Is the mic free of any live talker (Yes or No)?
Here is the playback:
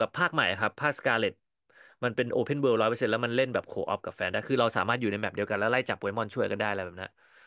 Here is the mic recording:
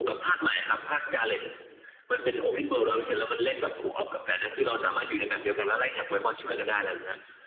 Yes